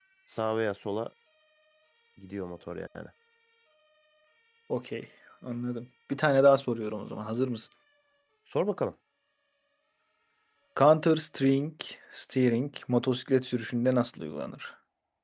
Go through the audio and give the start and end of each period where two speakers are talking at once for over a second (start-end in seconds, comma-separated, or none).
none